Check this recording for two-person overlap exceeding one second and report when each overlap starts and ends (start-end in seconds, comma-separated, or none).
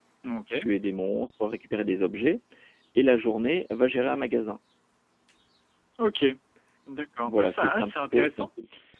7.2-8.5